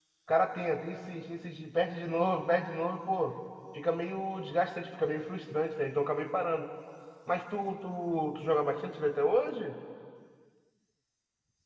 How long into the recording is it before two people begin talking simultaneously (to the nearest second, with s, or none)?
none